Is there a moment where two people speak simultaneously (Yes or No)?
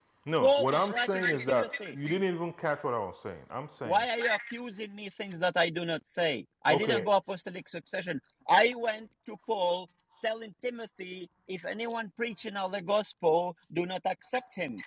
Yes